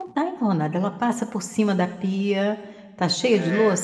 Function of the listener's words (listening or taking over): listening